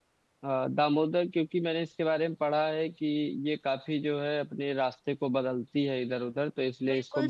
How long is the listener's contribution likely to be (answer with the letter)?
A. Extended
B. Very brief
A